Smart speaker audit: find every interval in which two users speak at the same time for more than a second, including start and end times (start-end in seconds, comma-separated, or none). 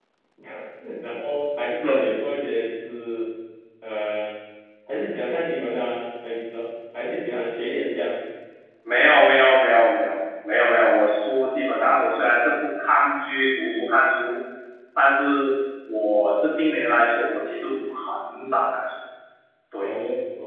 none